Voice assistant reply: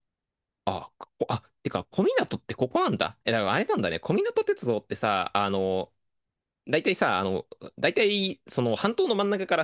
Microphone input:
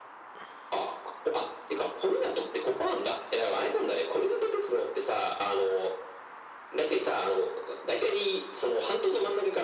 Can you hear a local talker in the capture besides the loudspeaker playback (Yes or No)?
No